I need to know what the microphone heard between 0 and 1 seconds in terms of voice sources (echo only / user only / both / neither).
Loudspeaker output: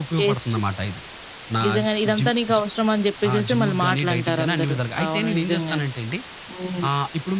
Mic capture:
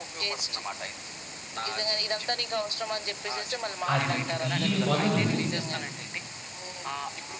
echo only